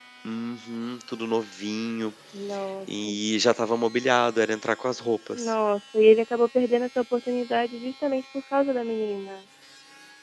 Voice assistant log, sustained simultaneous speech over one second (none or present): none